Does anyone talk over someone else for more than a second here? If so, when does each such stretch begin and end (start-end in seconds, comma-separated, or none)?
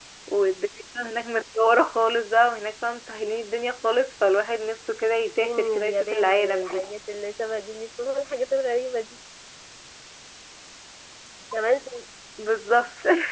5.4-6.8